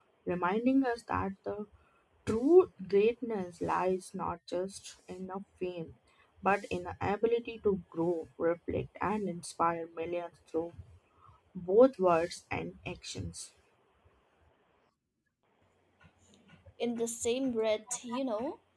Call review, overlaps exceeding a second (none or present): none